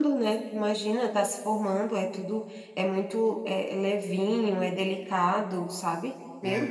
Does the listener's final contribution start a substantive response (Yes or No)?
Yes